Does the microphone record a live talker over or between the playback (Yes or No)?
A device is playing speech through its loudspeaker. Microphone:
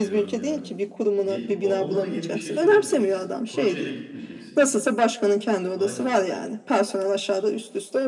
Yes